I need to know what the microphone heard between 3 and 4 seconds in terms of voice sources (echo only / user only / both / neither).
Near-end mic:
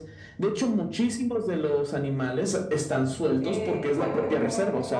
both